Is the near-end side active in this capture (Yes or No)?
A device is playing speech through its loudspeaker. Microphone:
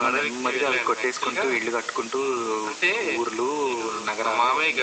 No